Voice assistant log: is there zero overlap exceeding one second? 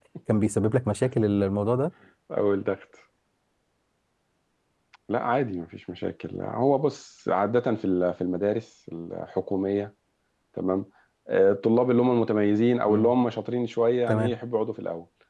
Yes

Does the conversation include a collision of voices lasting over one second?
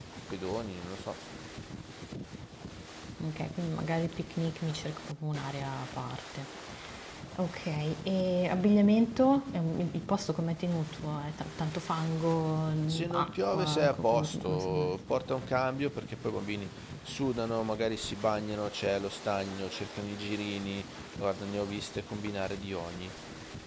Yes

